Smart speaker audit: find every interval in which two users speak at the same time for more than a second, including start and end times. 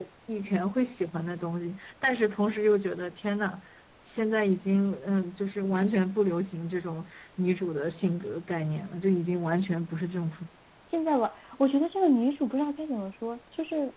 none

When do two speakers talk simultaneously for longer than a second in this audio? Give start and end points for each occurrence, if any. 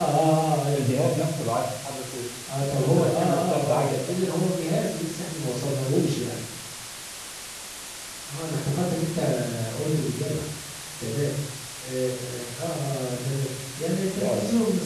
2.7-4.0

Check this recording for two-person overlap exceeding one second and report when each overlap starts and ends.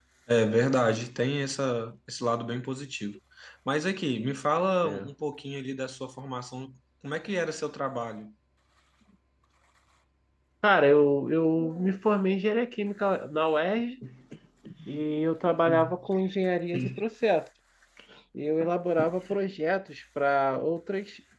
none

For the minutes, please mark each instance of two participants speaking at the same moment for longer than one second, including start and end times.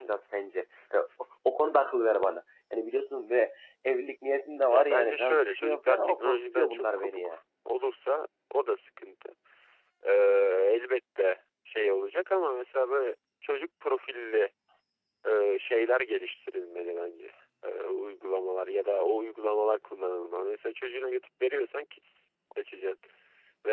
4.7-7.4

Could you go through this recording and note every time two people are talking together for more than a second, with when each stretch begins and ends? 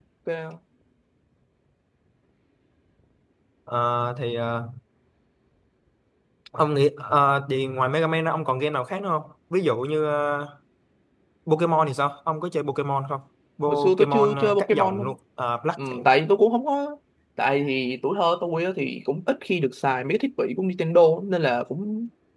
13.7-15.1

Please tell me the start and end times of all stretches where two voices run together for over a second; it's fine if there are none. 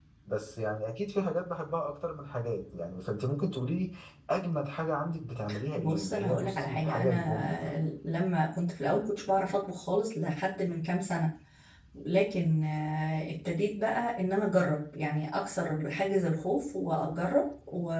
5.8-7.7

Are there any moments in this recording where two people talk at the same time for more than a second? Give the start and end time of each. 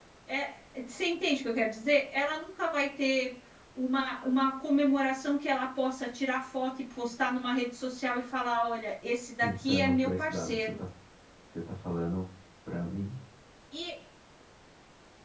9.4-10.8

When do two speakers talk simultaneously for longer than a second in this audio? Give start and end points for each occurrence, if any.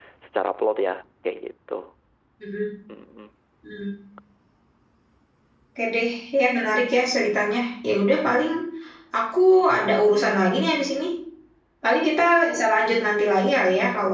none

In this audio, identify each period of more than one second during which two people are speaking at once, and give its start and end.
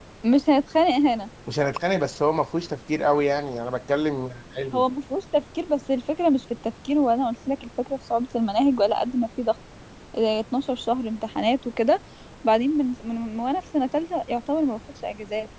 none

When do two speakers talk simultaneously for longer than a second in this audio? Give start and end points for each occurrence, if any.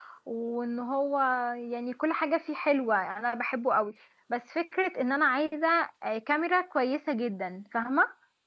none

